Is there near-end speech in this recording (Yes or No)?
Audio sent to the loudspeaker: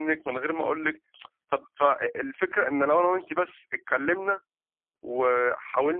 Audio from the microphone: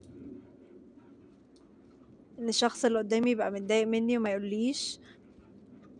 Yes